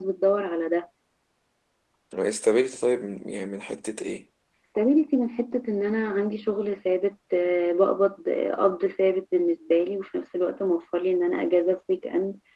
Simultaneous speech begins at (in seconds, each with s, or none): none